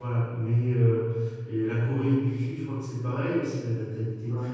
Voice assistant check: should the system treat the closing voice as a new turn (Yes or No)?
No